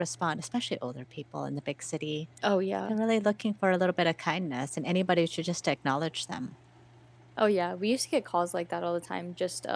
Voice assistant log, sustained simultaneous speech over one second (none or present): none